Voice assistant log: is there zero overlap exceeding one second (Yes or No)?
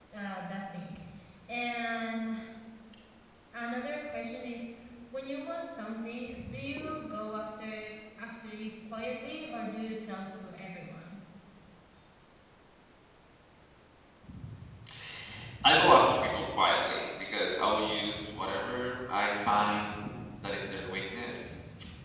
Yes